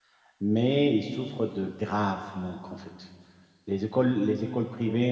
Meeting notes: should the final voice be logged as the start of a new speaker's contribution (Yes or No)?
No